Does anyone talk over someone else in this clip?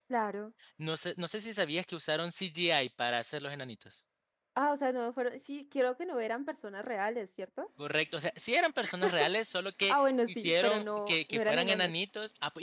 Yes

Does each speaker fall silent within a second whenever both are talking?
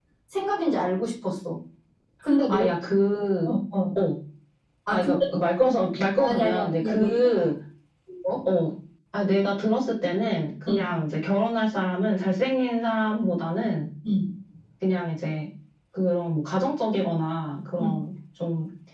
No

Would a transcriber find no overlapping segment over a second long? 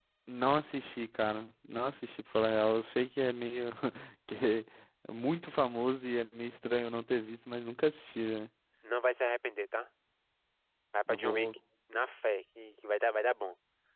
Yes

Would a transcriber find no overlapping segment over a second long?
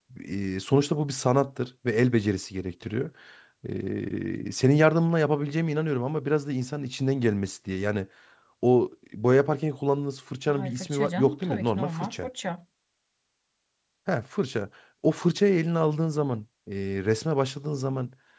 No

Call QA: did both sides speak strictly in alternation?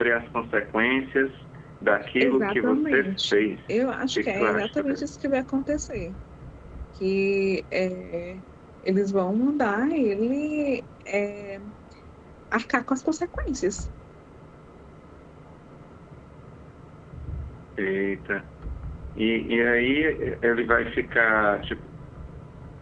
No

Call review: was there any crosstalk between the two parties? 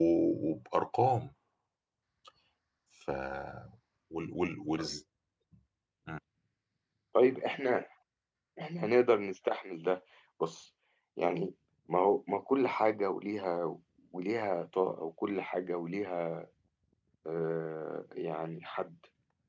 No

